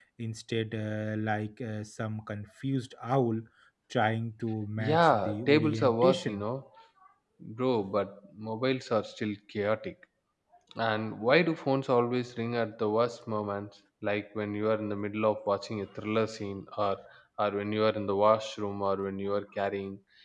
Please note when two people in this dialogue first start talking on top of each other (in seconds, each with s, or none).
4.8 s